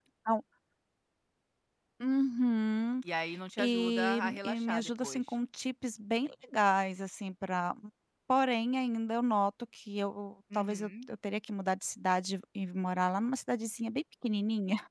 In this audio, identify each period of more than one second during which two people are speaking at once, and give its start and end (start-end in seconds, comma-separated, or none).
3.6-5.2